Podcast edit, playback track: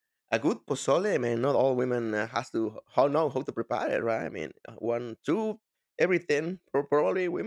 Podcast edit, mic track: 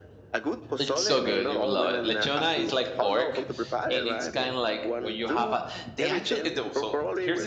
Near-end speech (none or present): present